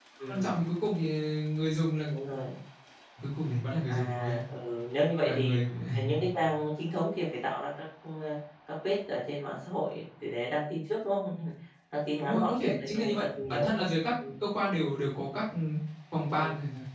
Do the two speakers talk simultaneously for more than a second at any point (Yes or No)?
Yes